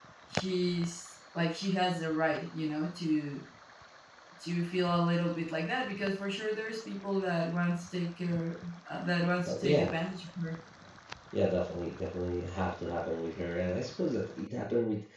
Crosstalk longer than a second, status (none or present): none